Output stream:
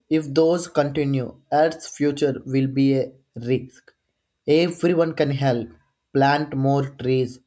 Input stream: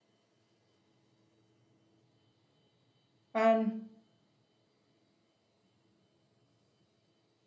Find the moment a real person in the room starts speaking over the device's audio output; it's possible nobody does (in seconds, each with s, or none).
3.3 s